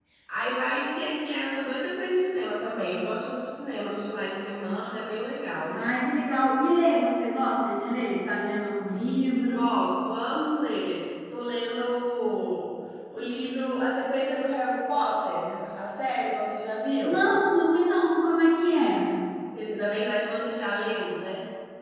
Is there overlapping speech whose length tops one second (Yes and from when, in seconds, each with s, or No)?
No